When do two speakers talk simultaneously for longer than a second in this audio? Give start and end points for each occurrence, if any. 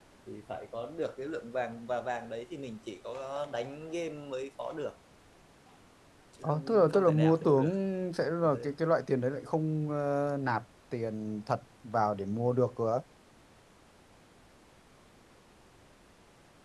6.4-7.7

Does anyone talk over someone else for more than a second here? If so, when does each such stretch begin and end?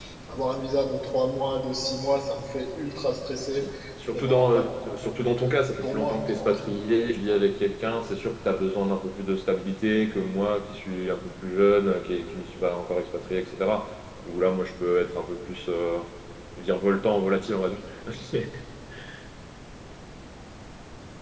4.1-6.9

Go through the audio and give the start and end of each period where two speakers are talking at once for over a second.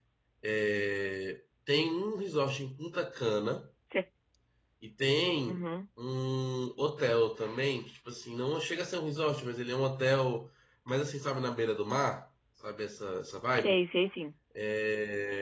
none

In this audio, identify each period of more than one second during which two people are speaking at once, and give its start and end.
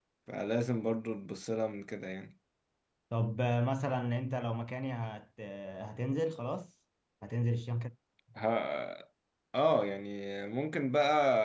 none

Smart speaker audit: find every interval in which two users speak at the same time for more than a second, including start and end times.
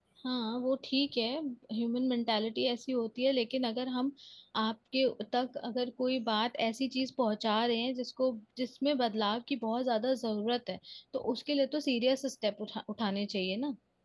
none

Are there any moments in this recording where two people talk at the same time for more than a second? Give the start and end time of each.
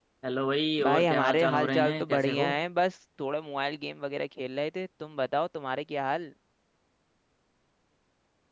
0.8-2.5

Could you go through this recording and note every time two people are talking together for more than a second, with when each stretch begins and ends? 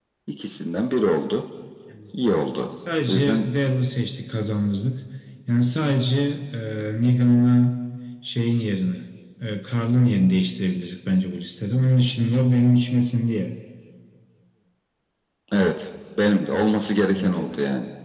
none

